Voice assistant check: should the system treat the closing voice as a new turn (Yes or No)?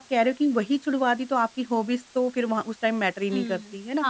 Yes